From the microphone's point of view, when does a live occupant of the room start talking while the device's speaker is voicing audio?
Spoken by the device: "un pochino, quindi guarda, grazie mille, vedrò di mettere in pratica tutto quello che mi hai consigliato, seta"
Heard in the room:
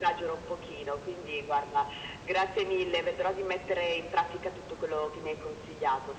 none

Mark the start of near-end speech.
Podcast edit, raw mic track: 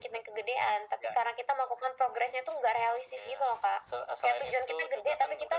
none

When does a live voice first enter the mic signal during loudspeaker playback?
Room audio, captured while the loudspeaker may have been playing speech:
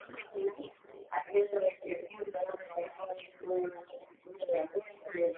none

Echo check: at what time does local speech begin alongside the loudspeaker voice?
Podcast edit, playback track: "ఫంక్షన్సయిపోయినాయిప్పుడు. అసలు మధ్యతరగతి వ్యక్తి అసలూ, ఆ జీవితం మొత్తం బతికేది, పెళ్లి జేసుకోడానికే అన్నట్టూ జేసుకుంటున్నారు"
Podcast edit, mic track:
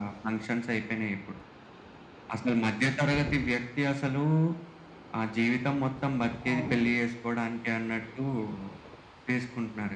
6 s

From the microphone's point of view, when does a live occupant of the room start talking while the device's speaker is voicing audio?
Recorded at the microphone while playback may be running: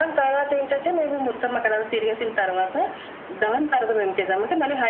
none

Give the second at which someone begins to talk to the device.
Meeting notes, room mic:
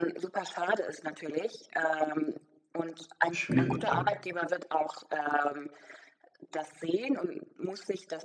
3 s

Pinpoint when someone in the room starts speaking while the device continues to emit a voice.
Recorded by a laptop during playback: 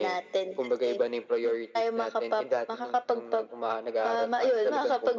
none

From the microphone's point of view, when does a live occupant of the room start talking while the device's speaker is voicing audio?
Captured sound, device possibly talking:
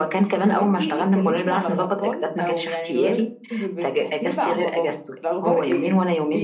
none

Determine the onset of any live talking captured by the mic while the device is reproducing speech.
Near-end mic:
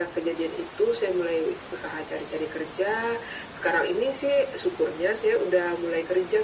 none

